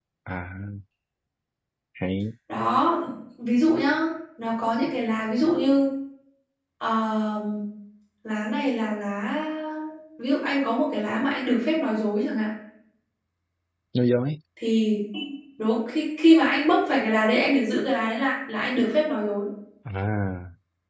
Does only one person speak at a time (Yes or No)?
Yes